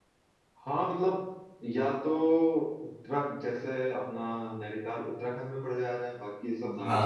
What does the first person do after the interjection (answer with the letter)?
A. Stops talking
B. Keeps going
B